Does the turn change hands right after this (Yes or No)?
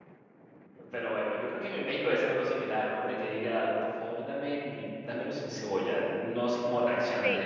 Yes